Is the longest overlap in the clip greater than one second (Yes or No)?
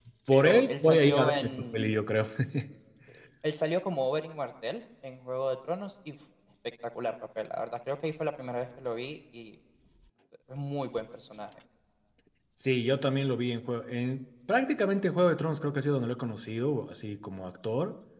Yes